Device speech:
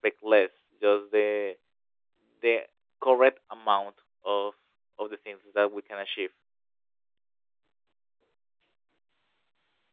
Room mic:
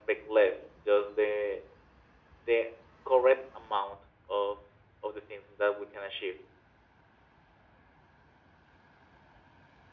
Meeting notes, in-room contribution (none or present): none